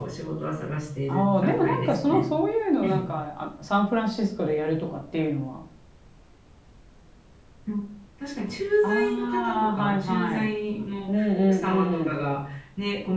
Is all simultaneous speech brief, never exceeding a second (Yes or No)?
No